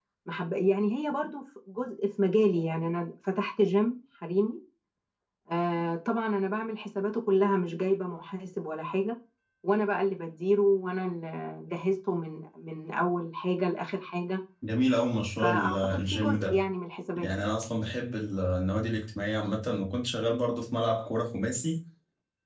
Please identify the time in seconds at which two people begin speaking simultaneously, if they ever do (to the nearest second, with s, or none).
15 s